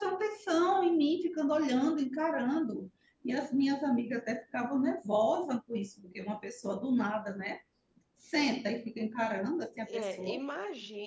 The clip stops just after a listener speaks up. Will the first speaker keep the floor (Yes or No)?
No